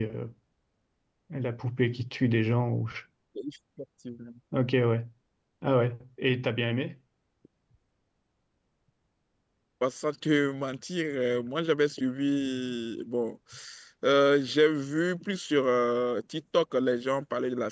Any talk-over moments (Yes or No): No